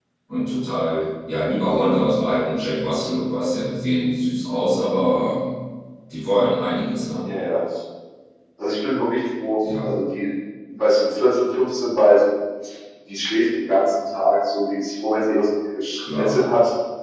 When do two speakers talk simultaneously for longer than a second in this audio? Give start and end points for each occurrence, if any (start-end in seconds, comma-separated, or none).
none